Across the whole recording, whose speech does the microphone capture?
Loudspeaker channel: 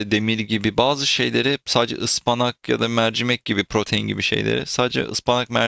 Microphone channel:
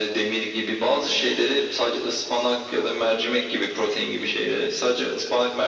echo only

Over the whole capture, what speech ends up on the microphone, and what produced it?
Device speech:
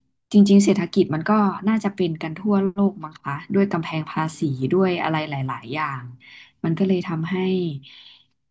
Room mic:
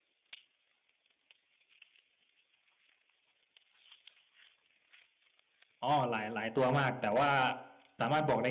user only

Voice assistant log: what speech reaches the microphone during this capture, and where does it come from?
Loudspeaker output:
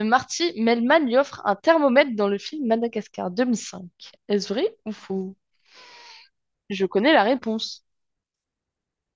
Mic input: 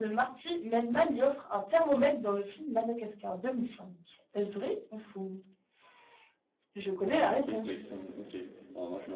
both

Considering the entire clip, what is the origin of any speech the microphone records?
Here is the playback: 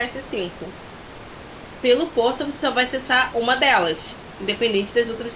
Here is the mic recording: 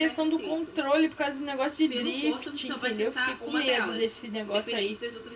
both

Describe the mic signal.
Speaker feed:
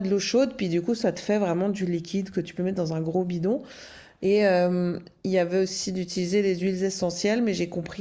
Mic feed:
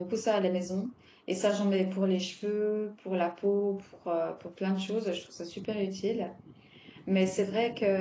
user only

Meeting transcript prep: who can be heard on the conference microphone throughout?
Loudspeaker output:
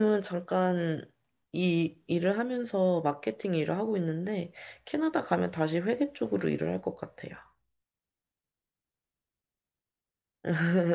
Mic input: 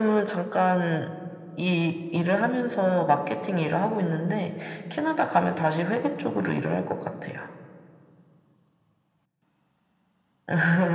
echo only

